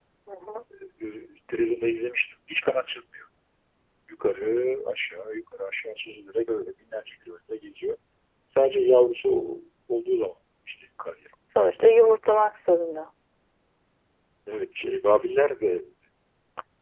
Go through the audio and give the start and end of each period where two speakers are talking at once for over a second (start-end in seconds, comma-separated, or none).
none